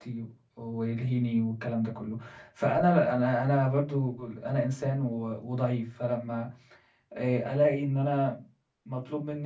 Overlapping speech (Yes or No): No